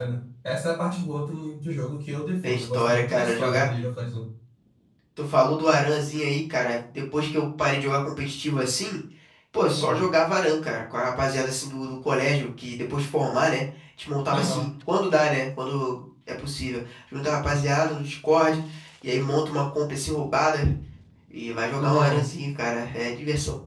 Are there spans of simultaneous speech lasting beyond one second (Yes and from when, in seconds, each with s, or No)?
Yes, from 2.4 s